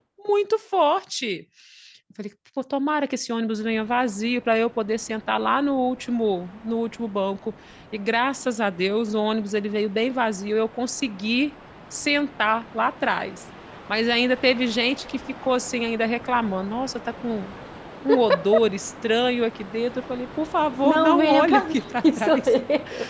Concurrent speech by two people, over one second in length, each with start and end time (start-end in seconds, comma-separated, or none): 20.8-22.5